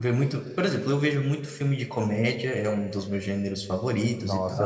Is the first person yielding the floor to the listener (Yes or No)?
Yes